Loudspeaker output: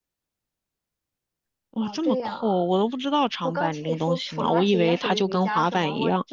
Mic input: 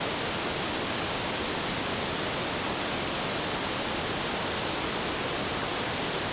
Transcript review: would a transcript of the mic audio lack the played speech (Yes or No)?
Yes